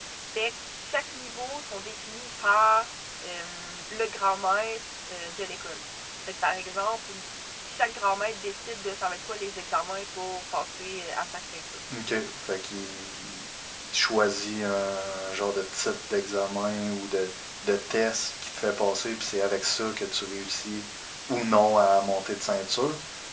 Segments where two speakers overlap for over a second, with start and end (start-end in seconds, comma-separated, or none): none